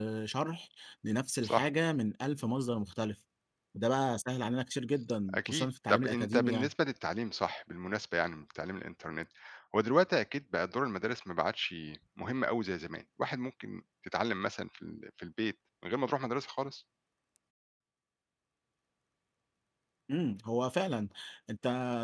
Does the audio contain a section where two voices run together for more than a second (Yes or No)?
Yes